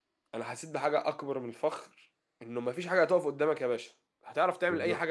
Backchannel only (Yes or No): Yes